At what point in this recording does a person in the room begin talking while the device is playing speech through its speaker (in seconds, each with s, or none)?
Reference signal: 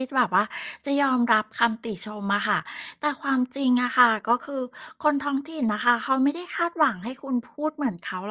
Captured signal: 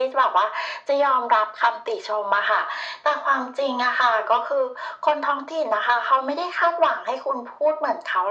none